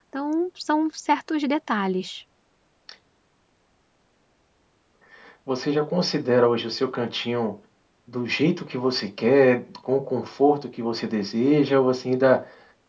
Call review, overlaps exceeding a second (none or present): none